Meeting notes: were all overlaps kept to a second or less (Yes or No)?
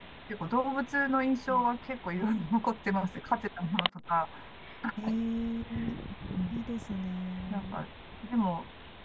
Yes